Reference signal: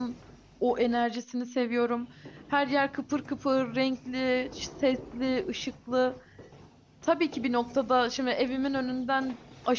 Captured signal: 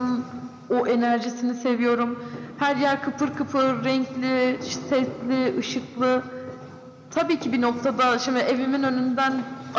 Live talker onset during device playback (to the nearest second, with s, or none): none